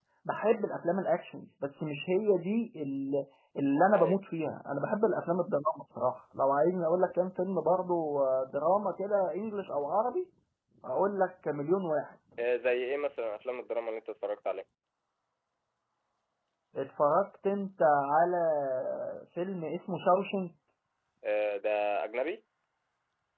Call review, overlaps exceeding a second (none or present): none